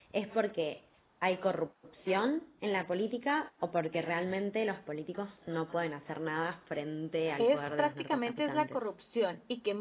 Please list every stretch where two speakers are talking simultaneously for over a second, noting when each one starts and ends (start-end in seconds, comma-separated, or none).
7.4-8.9